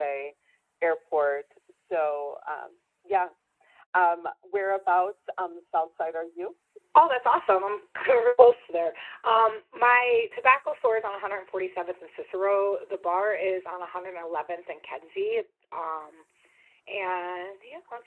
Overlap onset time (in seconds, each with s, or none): none